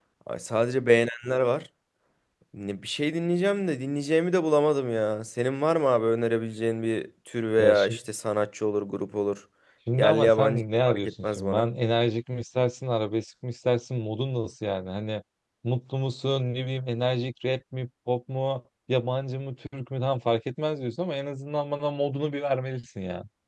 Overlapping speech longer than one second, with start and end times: 10.0-11.7

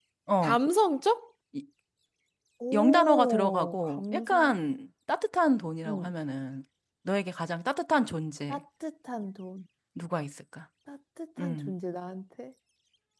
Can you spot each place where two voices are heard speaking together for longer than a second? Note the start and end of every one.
2.7-4.5

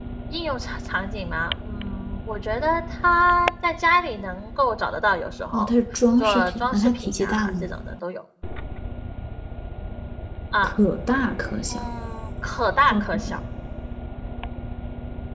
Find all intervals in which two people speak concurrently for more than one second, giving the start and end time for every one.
6.2-7.7

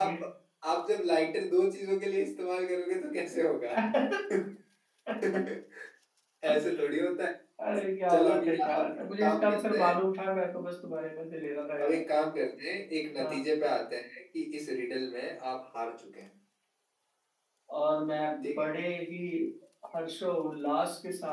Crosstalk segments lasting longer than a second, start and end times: 8.1-10.0

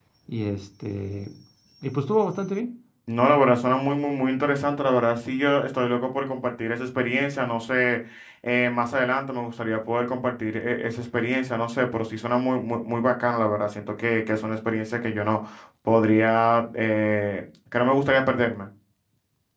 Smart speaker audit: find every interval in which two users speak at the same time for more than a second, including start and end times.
none

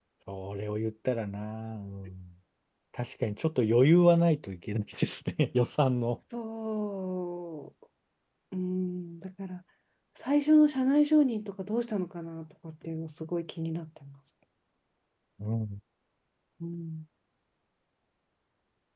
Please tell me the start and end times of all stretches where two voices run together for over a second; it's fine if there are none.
none

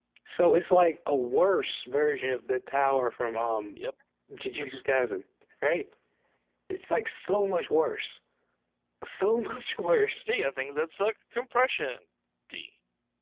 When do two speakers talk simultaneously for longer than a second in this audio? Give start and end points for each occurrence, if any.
none

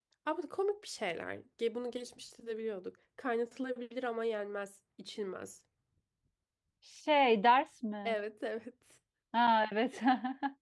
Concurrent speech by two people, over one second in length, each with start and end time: none

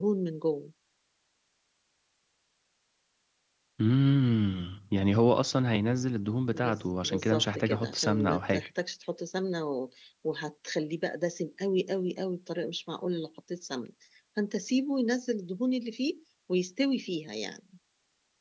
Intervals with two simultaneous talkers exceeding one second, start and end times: 6.5-8.7

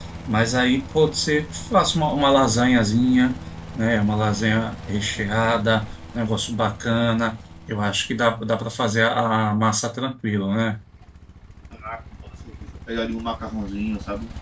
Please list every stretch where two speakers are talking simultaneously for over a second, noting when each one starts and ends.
none

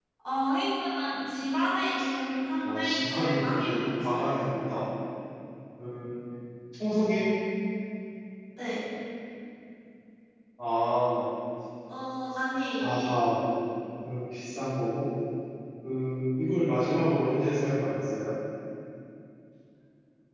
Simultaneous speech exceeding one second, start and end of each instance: 2.6-4.3

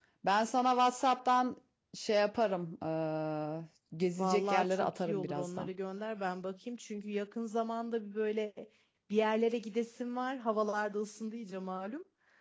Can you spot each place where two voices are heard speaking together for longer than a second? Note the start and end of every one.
4.2-5.7

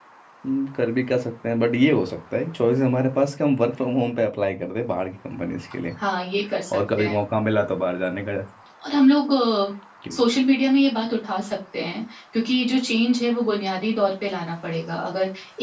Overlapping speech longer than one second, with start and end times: none

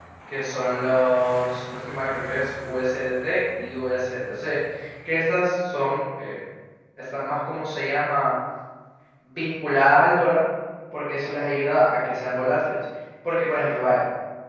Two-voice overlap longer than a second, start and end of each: none

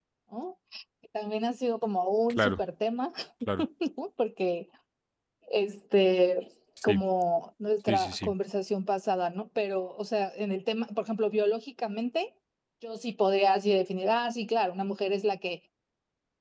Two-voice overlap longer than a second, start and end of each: none

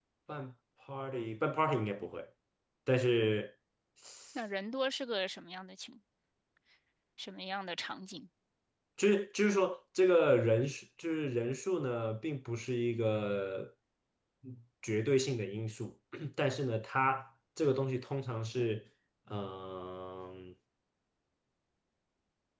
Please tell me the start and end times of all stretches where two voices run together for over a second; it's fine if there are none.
none

